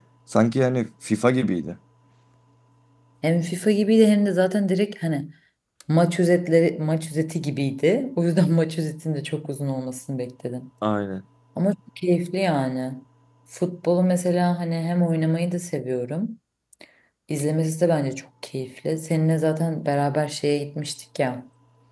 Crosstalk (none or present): none